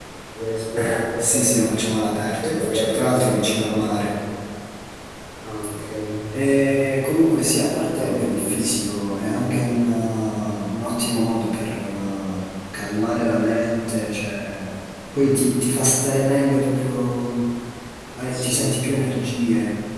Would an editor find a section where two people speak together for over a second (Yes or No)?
Yes